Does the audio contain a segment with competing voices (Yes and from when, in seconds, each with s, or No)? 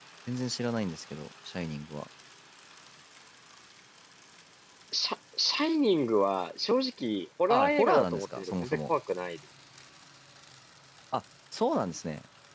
Yes, from 7.5 s